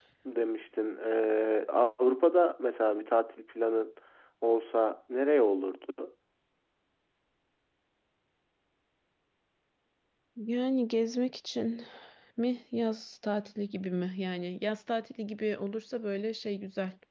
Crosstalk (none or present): none